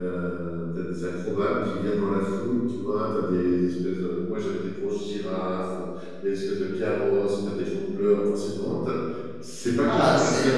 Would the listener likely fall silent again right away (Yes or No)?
No